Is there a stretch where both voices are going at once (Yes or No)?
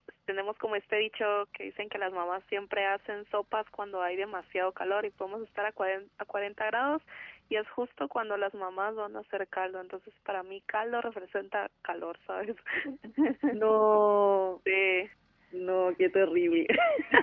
No